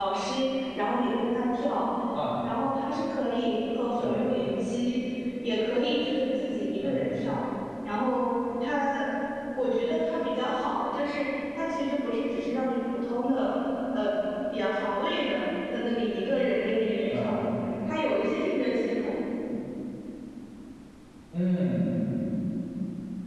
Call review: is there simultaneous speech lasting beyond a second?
No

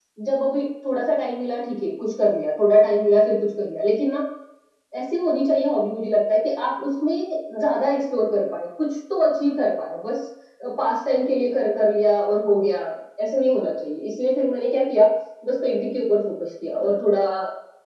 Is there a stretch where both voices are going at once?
No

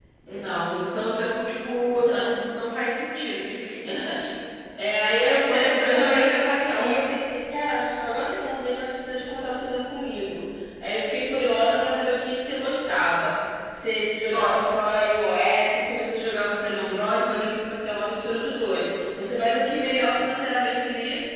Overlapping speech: Yes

